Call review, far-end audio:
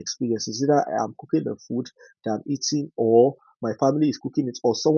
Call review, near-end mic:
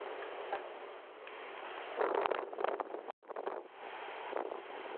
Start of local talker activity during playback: none

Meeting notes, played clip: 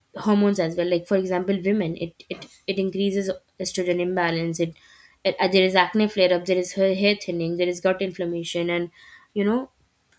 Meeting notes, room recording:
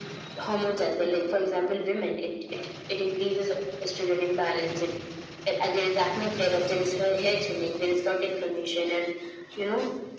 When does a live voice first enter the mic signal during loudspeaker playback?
none

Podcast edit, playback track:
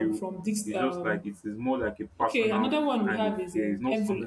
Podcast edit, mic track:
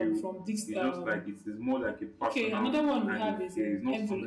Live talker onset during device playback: none

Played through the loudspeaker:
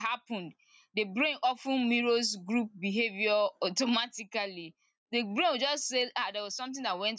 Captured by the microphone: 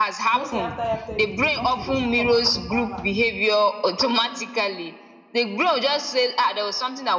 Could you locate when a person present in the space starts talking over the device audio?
0.3 s

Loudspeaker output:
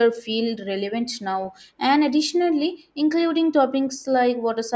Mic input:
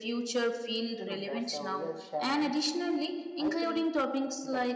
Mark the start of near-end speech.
1.0 s

